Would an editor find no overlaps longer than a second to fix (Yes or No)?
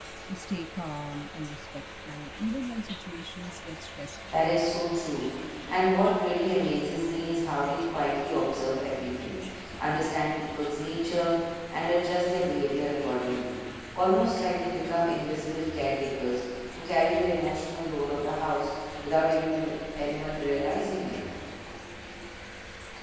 Yes